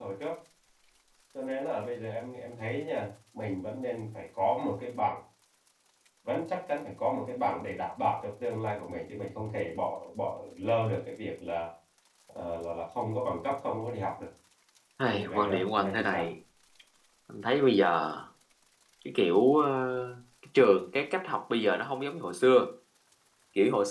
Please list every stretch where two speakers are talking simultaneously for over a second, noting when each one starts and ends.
15.1-16.3

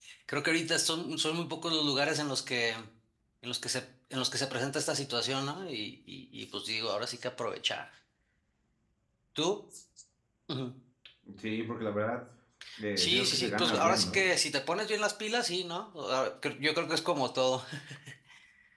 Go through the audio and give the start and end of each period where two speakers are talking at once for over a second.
13.0-14.2

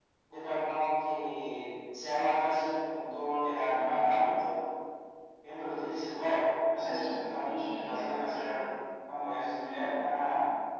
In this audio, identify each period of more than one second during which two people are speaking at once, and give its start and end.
6.8-8.6

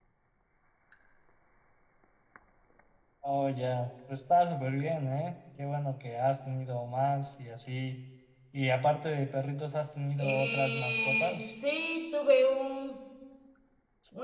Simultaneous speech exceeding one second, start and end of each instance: 10.2-11.5

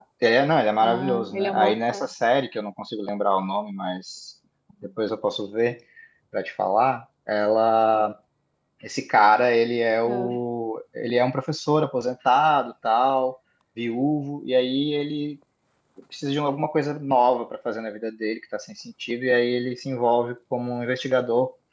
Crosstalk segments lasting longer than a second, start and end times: 0.8-2.1

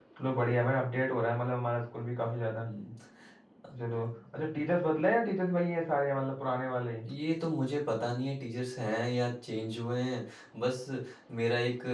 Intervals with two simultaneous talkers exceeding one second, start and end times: none

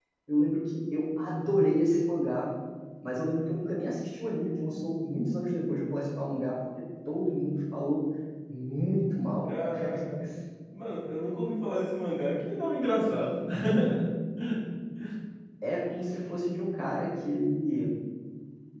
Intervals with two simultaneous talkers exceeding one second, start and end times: none

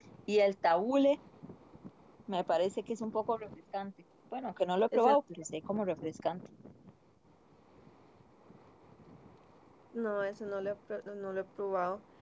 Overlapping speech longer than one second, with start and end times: none

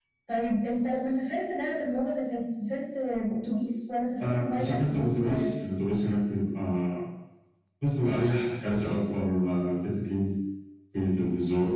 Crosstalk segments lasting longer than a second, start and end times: 4.2-5.5

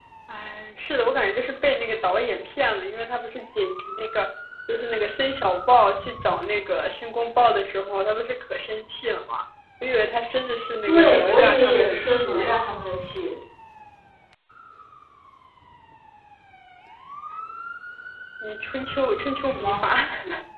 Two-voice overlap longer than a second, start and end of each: 10.9-12.4

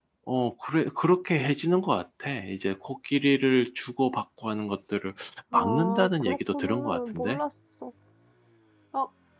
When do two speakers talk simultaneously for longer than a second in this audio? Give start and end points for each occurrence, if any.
5.5-7.4

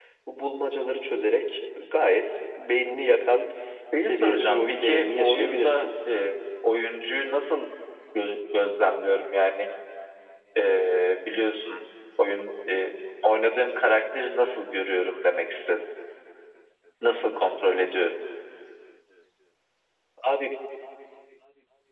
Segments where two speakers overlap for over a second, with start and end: 4.1-5.7

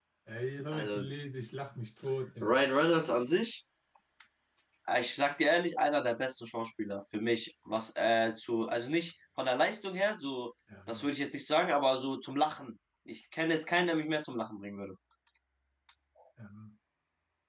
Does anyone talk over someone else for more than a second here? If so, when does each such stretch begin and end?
none

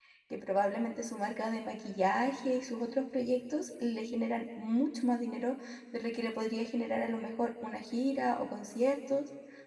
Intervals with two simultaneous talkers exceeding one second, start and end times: none

